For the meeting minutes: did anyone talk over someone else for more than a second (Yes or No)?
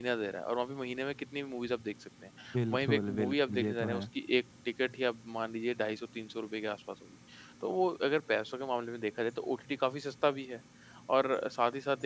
Yes